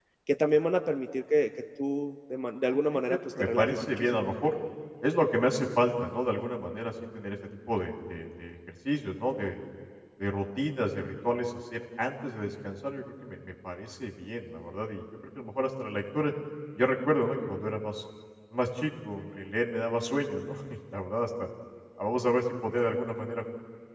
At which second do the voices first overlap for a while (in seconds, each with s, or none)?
2.7 s